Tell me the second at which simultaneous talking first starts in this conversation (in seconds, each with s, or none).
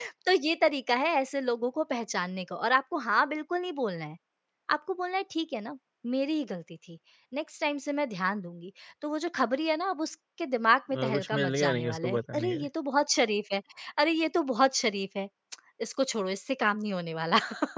10.9 s